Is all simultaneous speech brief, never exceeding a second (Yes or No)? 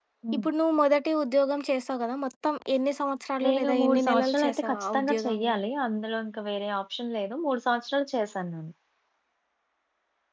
No